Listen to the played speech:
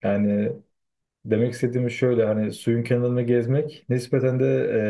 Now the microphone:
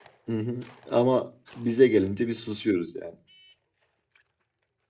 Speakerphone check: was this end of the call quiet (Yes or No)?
No